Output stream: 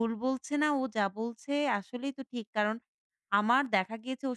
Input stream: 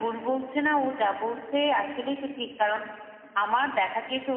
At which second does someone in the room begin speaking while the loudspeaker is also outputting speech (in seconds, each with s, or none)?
none